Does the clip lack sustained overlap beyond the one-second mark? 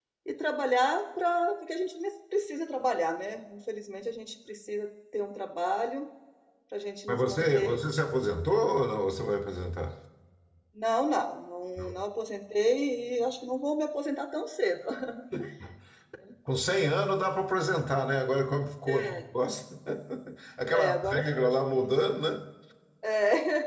No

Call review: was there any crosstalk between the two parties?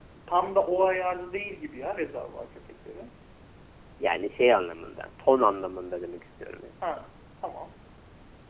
No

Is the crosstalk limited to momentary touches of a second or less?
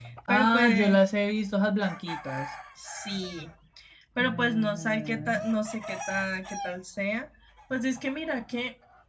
No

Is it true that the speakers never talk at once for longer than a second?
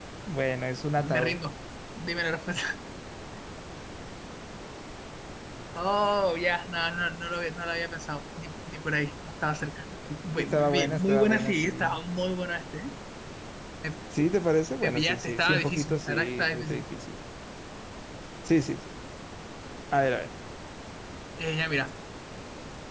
No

